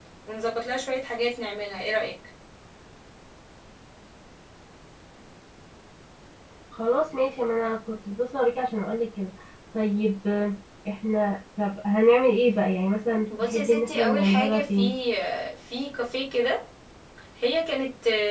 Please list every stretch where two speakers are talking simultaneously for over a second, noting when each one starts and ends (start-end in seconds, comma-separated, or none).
13.4-14.8